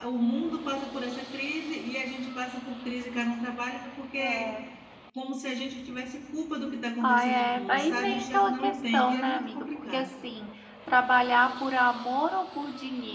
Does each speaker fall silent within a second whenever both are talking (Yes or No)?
No